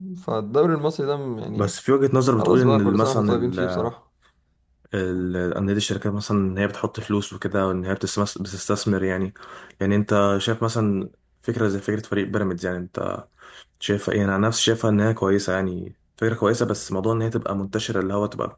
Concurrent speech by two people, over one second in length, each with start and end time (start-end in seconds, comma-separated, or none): 2.4-3.9